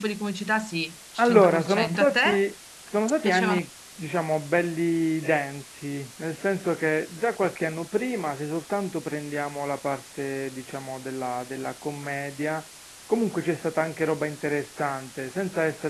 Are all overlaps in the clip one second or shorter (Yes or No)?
No